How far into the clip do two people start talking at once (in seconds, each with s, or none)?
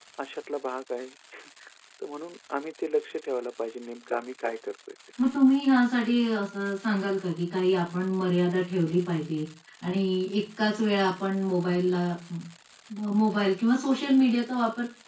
none